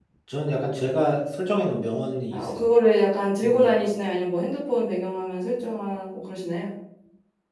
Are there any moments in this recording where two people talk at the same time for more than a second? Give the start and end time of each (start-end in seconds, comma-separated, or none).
none